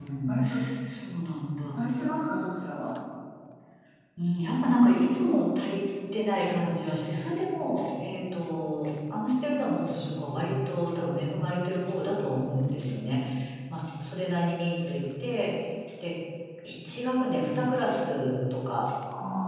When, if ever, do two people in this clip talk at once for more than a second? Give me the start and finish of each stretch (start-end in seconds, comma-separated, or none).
none